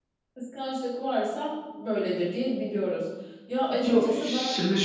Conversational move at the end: taking over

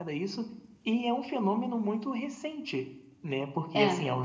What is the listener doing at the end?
listening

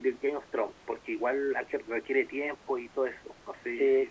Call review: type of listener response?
taking over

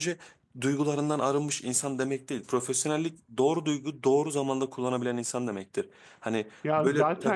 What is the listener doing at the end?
listening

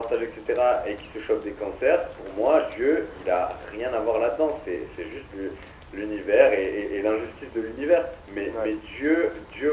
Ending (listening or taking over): listening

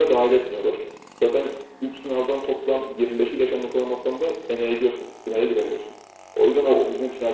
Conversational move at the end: listening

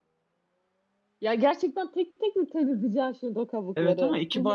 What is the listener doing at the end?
taking over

